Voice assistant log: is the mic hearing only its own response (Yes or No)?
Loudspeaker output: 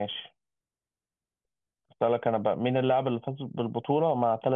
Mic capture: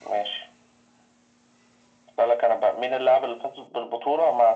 Yes